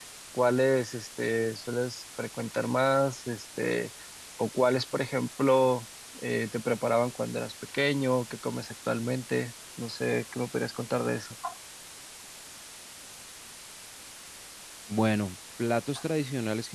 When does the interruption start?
none

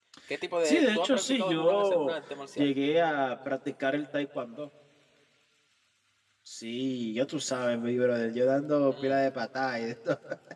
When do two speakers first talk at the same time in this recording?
0.6 s

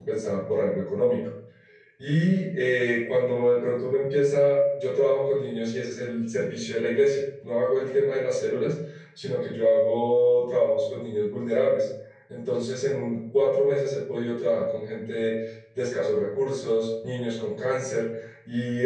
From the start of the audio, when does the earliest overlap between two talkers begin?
none

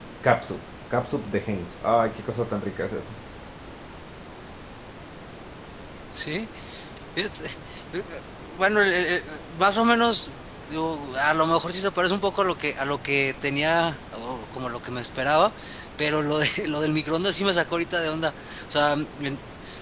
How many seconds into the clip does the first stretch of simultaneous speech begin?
none

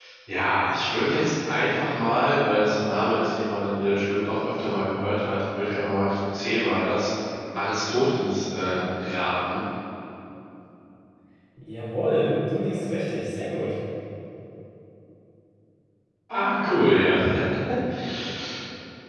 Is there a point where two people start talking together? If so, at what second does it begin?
none

